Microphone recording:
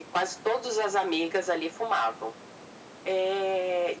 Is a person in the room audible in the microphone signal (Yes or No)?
No